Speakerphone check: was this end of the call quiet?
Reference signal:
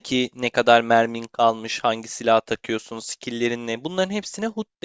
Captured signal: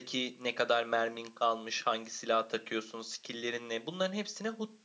Yes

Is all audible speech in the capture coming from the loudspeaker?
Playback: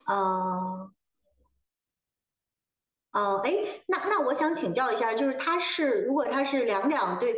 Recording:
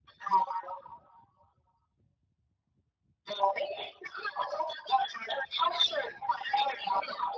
Yes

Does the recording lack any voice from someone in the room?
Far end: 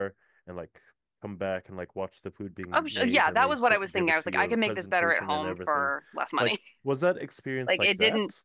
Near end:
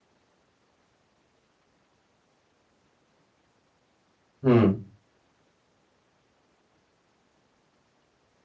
No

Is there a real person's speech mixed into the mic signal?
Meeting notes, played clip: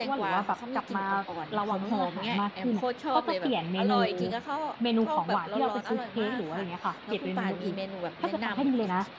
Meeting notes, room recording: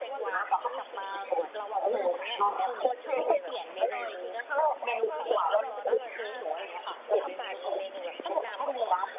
No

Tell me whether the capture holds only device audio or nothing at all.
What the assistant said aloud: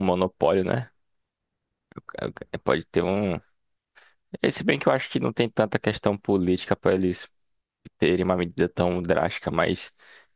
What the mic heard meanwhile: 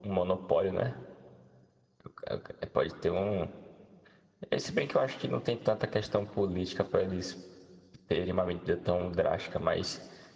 Yes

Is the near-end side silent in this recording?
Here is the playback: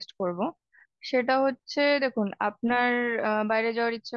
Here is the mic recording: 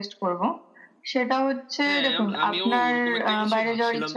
No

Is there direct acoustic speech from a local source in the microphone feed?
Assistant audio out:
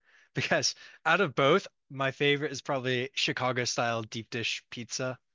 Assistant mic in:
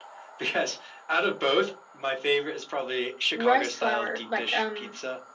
Yes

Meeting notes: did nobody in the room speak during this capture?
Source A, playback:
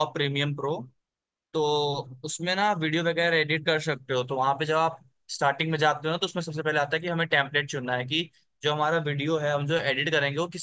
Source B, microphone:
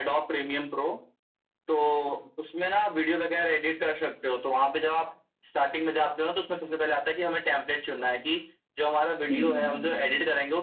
No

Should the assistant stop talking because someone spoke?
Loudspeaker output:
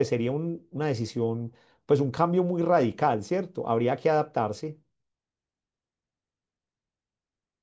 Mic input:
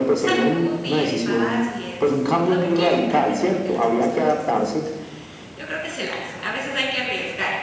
Yes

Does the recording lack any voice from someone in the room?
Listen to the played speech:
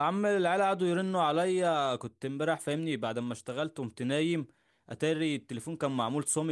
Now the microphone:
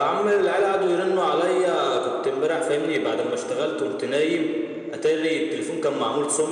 Yes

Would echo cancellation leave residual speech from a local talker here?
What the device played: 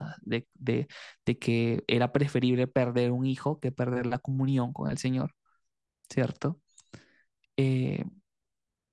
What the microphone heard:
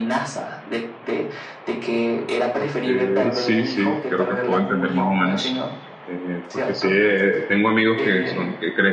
Yes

